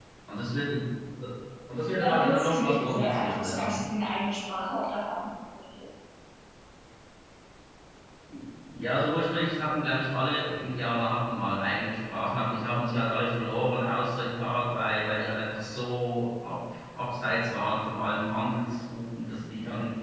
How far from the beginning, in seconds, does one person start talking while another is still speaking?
2 s

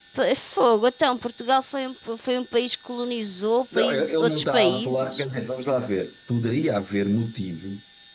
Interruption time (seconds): 4 s

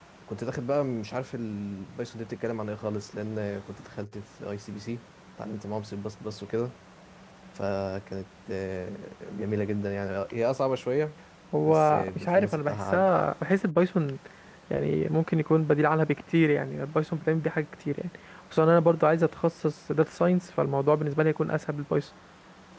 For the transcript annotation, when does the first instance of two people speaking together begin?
12 s

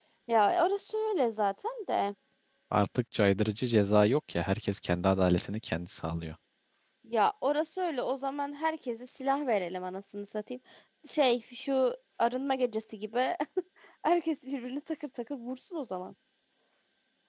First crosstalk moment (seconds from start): none

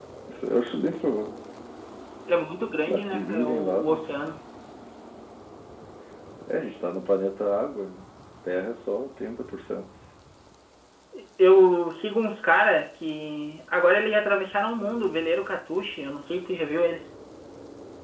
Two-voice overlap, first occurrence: 3 s

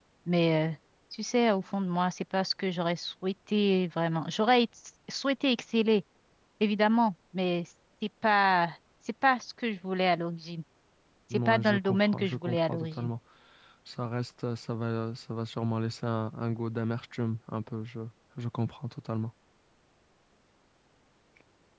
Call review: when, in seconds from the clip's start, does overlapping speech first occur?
11 s

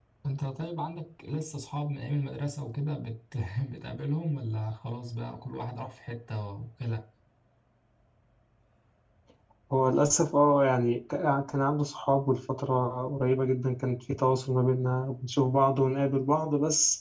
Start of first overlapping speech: none

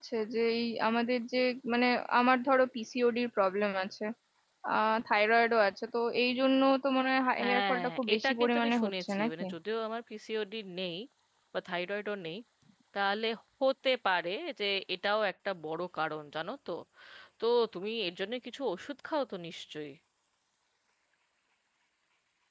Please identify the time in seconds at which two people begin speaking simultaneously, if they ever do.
7 s

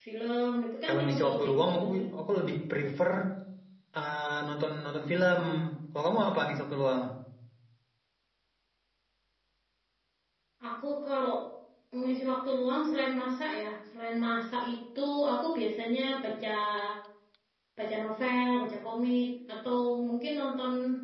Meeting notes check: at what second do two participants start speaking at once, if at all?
1 s

